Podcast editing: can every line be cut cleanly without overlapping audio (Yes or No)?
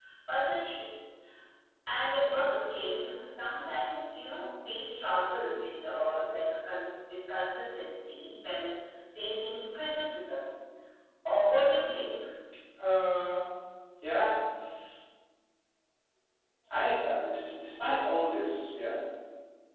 Yes